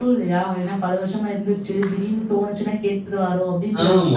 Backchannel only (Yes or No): No